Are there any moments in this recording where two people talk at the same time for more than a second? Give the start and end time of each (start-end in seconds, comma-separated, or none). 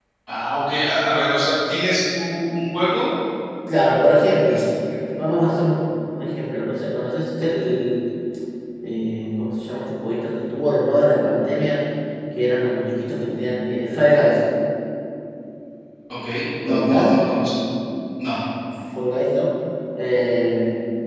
none